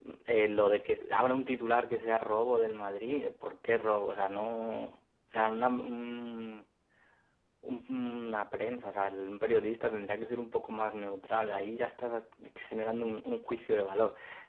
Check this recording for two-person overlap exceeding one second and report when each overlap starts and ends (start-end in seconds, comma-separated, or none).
none